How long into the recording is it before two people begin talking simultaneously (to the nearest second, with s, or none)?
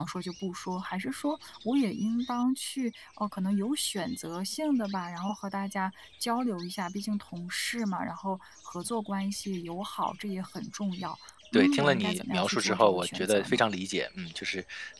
12 s